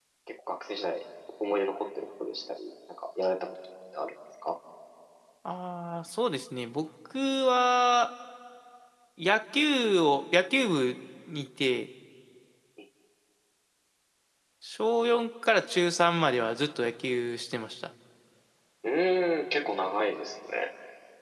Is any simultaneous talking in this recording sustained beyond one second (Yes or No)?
No